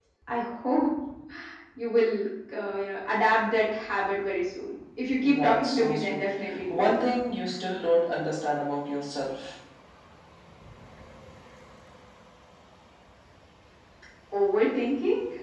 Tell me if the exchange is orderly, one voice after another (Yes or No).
No